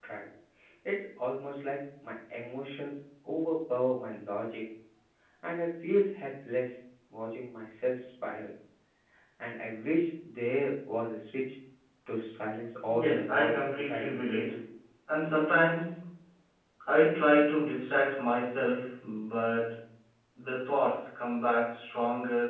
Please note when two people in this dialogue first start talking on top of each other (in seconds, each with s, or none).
12.9 s